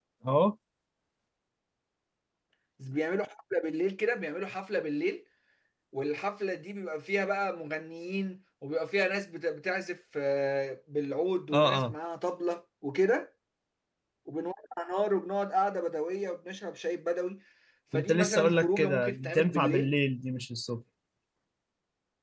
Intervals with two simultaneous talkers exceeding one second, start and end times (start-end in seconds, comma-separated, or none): 17.9-19.9